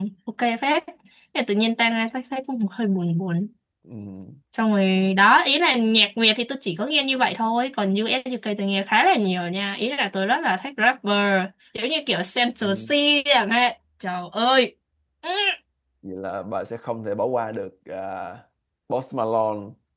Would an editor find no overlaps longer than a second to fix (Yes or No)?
Yes